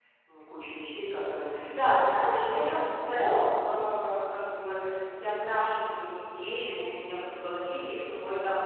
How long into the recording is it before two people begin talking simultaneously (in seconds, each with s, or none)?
1.5 s